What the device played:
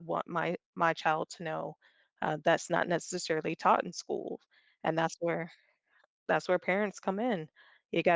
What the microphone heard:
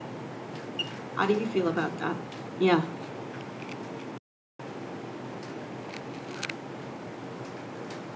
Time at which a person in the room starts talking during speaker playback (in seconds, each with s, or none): 1.1 s